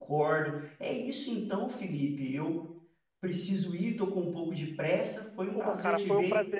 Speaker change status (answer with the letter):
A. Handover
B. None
A